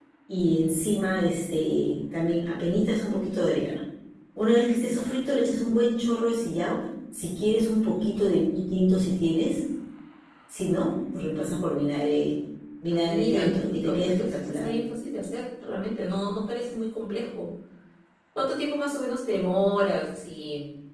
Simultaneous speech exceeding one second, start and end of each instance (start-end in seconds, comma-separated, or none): 12.9-14.7